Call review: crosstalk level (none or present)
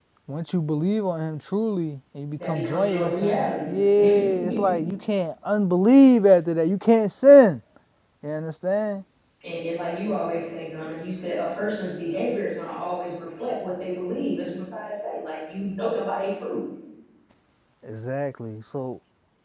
present